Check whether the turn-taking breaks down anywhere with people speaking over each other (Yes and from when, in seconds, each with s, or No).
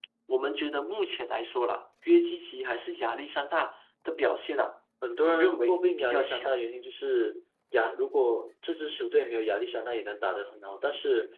Yes, from 5.0 s